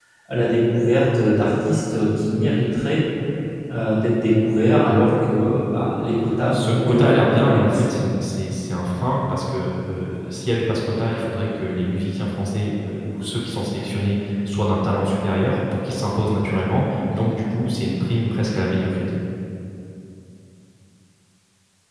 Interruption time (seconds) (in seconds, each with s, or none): 6.5 s